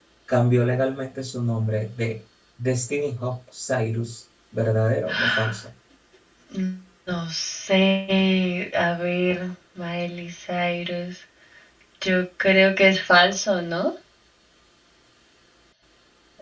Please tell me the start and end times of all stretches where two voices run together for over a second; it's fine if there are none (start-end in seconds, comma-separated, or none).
none